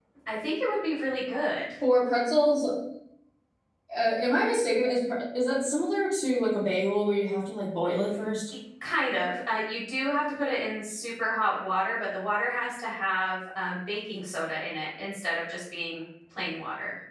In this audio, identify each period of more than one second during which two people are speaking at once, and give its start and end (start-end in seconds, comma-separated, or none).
none